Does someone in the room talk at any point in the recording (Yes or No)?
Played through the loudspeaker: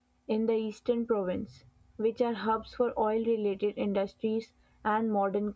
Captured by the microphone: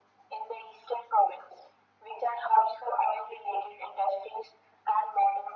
No